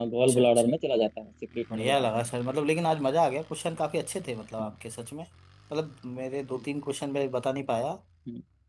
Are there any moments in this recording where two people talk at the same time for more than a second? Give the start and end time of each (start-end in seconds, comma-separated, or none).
none